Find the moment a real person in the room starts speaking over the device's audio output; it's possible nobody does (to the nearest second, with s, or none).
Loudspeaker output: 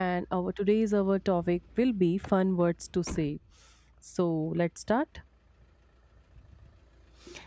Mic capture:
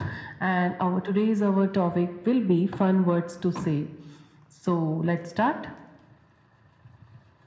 none